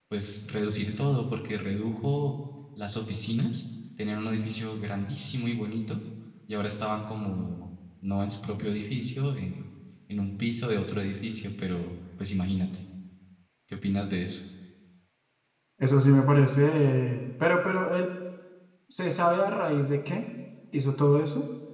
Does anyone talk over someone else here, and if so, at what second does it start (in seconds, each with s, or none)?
none